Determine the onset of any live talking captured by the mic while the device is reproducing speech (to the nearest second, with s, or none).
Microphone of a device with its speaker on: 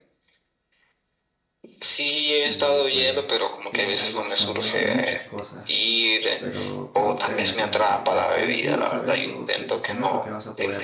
2 s